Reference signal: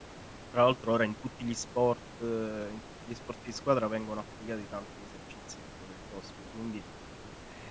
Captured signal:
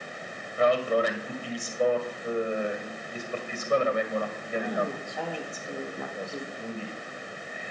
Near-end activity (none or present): present